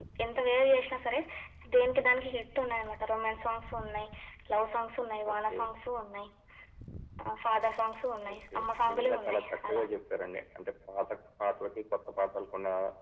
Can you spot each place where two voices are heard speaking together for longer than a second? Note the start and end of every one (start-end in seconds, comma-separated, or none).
8.3-9.8